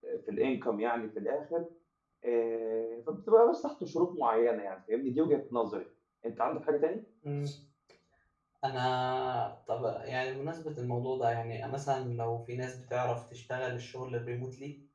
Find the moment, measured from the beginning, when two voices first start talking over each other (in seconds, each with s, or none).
none